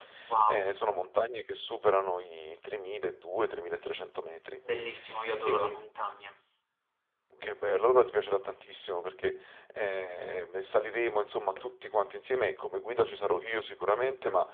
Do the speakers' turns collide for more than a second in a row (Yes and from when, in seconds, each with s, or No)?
No